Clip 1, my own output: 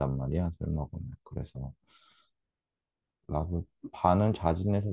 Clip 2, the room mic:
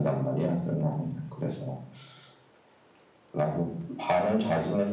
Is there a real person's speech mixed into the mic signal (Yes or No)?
No